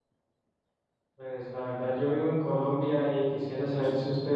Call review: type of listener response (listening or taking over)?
listening